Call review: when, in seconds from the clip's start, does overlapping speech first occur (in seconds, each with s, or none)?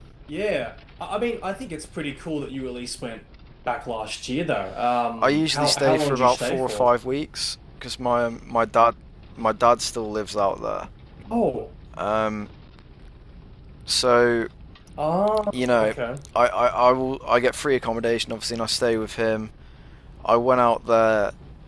5.2 s